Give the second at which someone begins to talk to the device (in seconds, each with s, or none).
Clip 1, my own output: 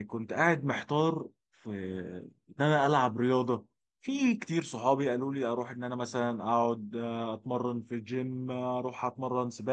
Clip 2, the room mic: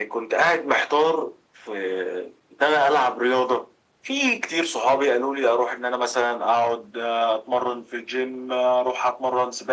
none